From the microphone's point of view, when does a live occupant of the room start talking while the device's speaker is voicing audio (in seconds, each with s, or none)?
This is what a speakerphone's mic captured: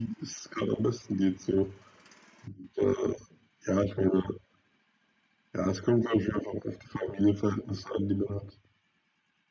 none